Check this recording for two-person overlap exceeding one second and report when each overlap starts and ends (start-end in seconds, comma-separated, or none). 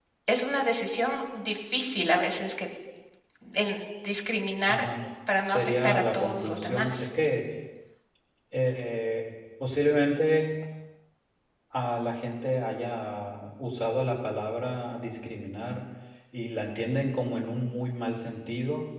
5.4-7.1